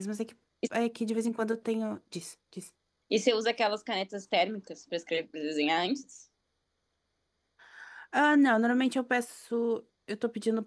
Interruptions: none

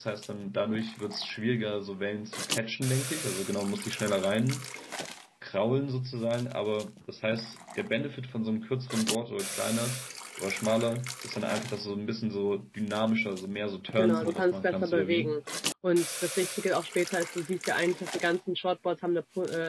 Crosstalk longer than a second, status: present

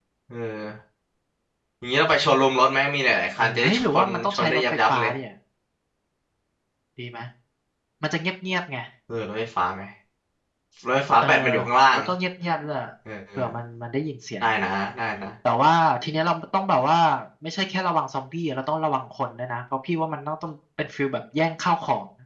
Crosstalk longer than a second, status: present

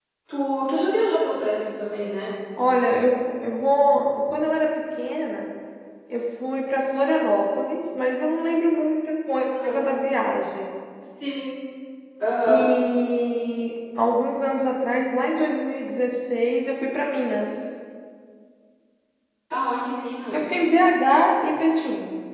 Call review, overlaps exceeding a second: none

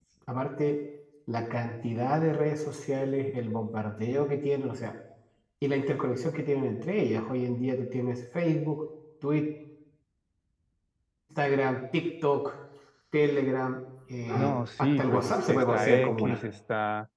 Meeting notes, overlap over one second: present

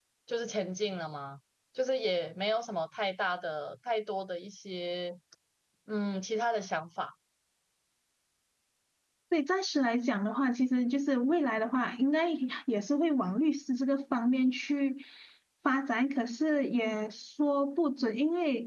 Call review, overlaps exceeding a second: none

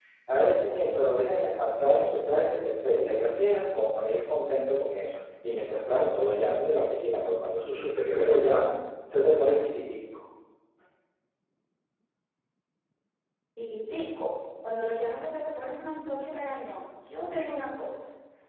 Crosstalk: none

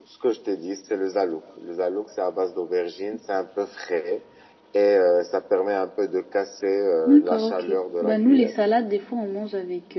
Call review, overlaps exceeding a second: present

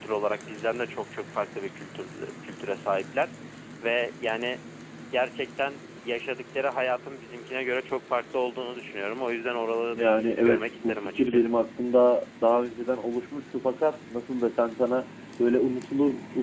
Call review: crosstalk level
present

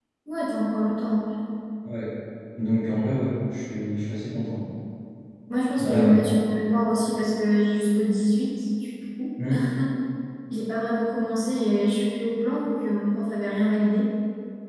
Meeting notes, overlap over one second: none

